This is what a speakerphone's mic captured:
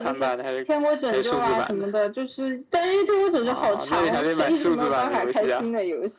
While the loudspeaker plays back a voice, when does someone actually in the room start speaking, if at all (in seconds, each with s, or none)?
none